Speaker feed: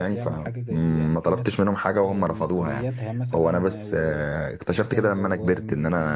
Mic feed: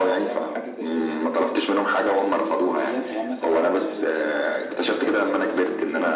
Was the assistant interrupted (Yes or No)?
No